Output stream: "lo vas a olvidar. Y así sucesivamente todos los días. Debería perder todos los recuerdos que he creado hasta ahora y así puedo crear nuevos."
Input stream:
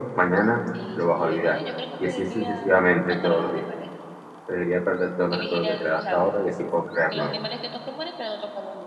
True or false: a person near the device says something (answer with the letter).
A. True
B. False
A